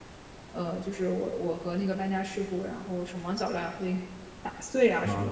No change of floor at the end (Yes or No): No